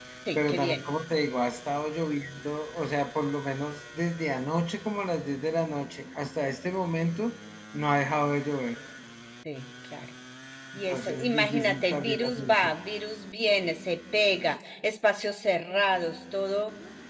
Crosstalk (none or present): present